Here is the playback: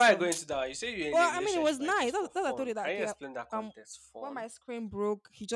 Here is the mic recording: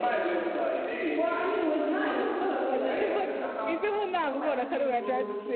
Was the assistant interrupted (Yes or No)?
Yes